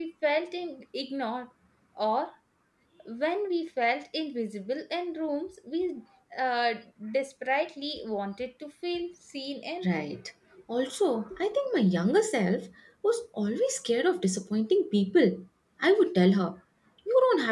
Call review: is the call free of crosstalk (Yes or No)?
Yes